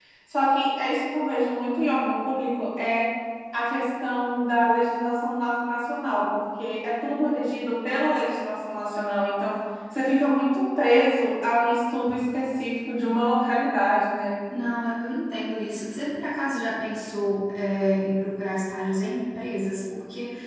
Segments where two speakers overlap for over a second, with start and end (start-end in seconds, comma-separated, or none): none